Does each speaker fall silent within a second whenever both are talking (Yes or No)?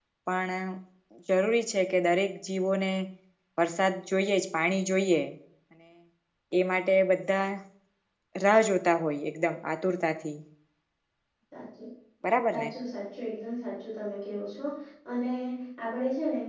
Yes